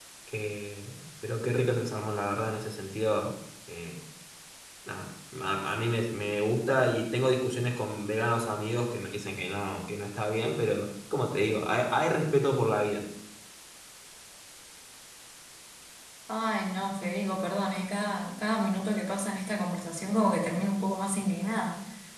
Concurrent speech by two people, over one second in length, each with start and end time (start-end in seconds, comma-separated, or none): none